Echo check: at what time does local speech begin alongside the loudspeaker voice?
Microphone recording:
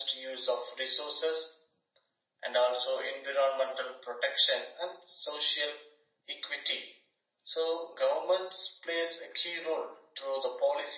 none

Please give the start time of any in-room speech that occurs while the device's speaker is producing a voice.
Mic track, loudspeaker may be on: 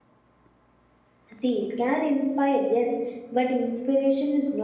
1.3 s

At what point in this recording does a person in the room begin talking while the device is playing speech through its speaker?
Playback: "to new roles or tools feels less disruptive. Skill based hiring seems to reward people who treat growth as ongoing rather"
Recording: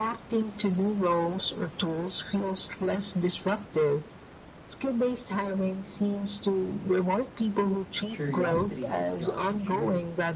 8.1 s

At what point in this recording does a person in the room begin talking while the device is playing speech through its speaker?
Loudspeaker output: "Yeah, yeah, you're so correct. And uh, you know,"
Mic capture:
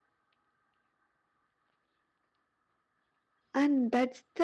3.5 s

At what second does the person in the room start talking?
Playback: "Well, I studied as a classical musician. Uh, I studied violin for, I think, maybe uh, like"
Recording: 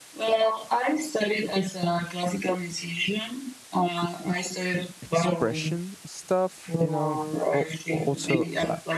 5.0 s

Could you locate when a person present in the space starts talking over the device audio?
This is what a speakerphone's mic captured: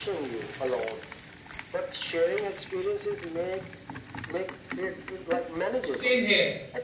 5.8 s

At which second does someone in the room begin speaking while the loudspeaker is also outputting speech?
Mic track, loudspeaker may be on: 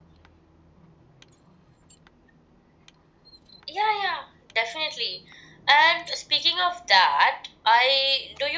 none

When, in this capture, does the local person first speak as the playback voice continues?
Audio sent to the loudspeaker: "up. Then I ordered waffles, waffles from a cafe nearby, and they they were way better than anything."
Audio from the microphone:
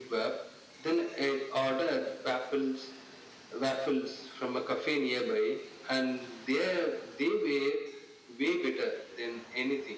none

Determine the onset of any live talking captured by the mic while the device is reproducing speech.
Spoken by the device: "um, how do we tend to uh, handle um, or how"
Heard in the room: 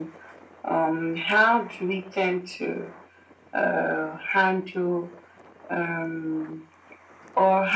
none

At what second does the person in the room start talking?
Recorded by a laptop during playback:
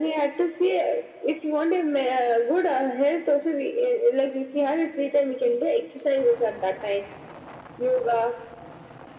none

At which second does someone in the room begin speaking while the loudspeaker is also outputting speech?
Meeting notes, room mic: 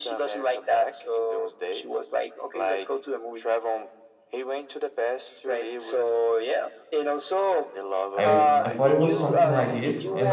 8.2 s

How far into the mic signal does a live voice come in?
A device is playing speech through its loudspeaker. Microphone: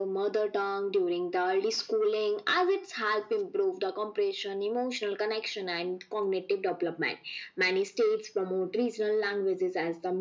none

